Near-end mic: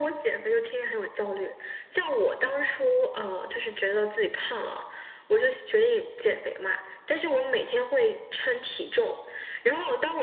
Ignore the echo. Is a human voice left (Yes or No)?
No